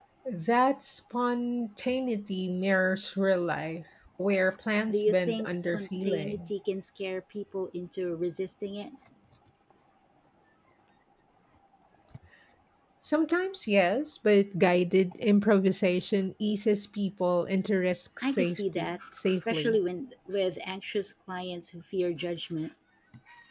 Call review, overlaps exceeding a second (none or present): present